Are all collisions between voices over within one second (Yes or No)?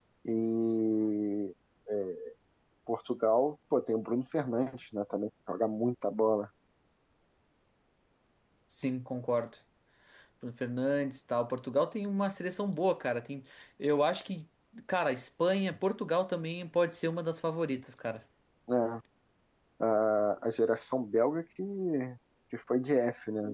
Yes